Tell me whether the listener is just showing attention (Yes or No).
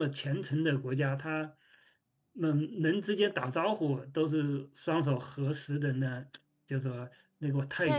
No